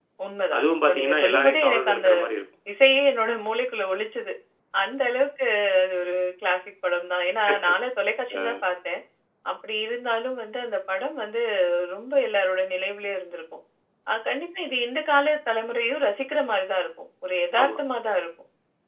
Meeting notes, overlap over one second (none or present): present